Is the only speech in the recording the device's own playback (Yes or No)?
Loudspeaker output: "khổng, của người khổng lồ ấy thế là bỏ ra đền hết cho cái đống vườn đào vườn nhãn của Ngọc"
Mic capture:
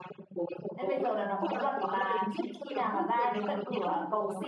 No